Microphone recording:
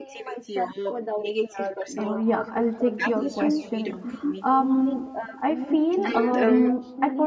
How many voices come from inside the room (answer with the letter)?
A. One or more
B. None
A